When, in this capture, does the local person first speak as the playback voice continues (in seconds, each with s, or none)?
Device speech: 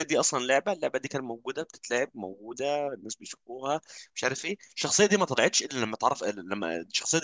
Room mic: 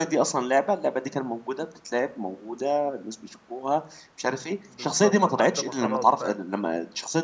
4.7 s